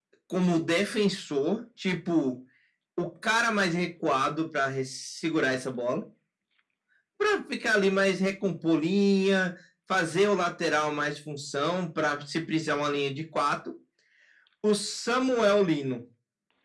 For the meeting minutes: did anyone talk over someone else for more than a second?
No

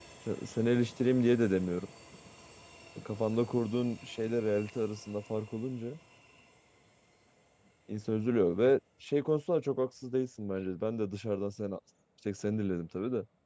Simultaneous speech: No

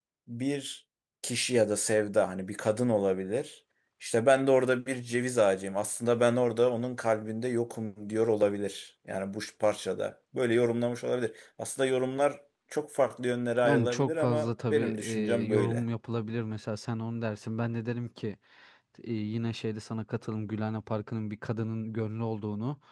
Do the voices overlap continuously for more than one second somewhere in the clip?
Yes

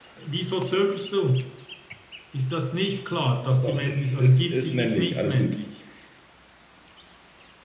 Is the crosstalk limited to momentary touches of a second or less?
No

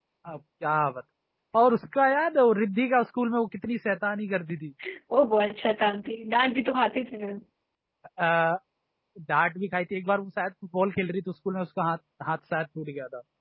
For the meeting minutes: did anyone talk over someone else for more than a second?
No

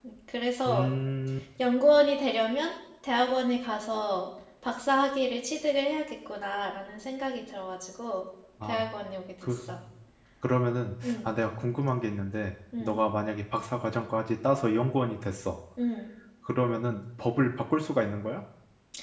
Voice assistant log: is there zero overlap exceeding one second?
Yes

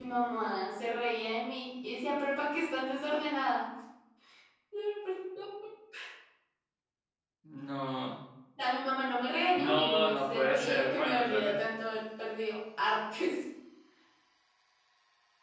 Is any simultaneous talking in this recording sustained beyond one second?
Yes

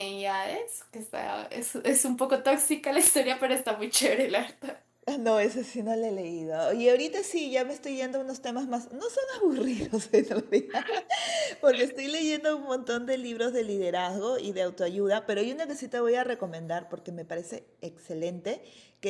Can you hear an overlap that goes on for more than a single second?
No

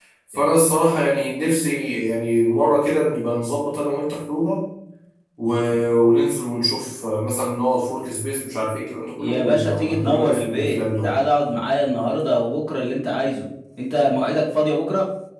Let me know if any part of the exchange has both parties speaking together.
Yes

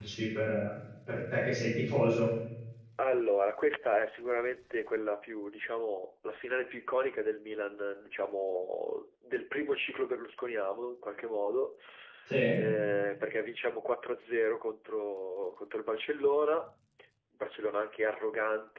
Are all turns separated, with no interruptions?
Yes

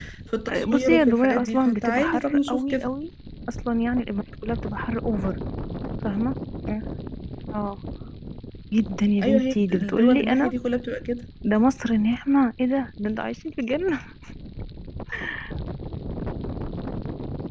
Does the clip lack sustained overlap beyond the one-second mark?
No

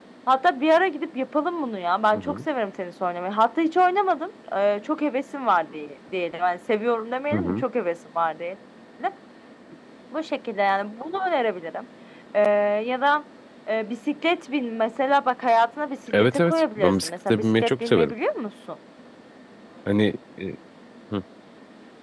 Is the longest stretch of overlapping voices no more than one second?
No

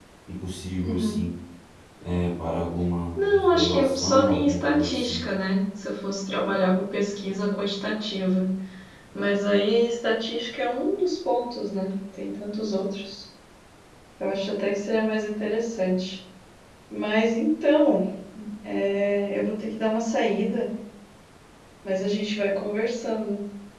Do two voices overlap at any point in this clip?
Yes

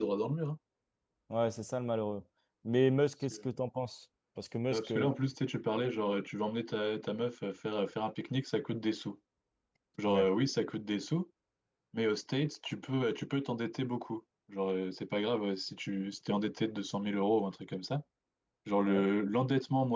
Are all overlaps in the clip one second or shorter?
Yes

